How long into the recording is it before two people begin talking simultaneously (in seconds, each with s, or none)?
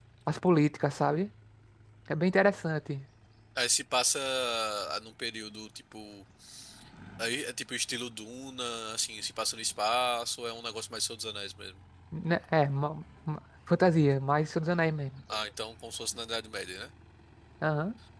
none